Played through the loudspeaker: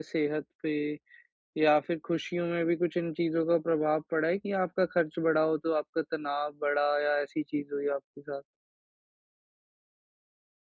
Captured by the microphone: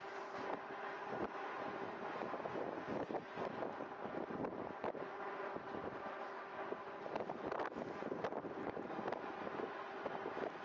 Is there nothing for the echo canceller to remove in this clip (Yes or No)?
Yes